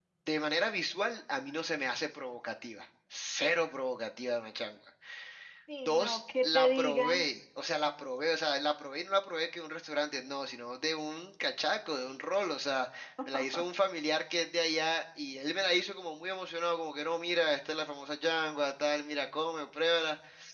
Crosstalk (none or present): present